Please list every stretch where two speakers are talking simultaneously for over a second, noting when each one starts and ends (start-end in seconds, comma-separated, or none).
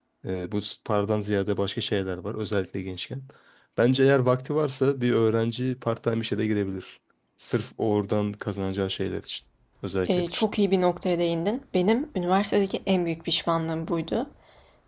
none